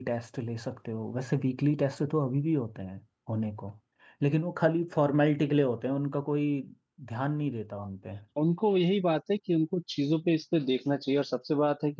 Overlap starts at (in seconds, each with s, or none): none